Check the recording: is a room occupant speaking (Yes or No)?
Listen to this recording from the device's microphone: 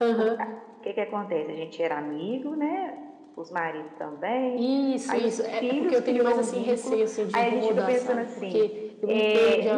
No